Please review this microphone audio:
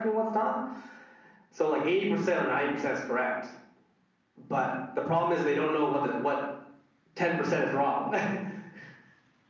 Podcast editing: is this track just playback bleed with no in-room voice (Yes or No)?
Yes